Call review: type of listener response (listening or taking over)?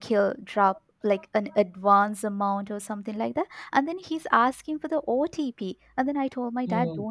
listening